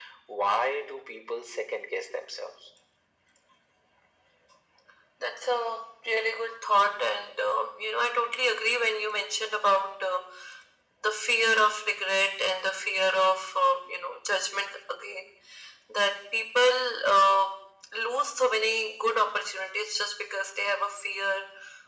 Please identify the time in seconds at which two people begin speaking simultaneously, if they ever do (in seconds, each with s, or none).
none